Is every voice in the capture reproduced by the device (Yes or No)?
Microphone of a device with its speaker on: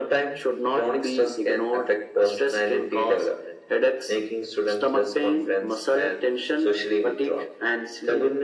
Yes